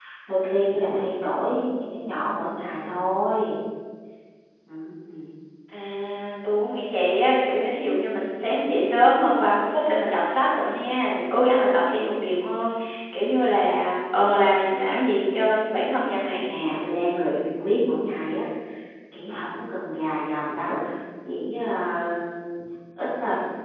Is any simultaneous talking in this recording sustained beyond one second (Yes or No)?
No